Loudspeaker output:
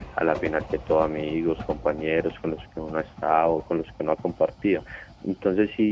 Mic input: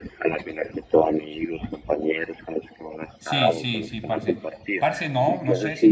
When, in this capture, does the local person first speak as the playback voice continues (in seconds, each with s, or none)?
3.2 s